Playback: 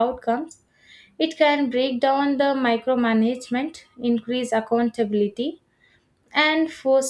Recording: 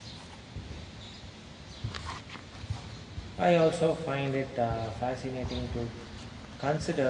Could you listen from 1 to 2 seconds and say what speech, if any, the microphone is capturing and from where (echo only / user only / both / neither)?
neither